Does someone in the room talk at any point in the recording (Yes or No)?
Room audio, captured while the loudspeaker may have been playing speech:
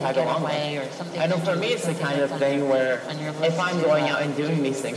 No